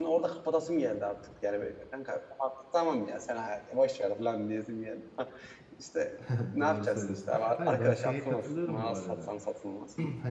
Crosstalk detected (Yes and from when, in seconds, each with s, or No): Yes, from 6.6 s